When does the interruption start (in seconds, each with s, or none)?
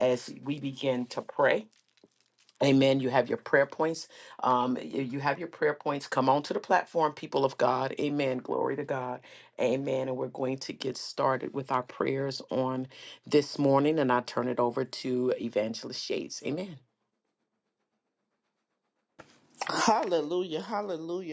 none